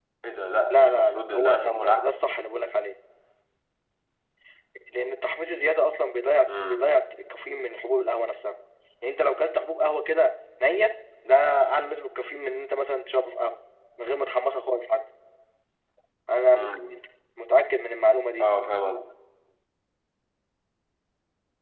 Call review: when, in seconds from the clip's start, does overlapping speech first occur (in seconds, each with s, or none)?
0.7 s